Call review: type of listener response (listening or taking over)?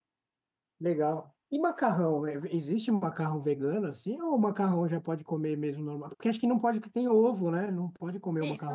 taking over